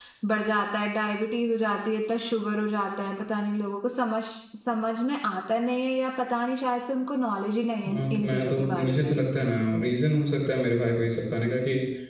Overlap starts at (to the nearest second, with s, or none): 8 s